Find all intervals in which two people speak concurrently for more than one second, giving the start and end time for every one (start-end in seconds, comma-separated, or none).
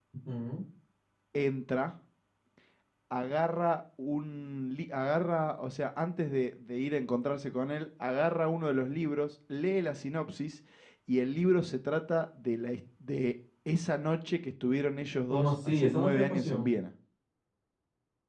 15.3-16.7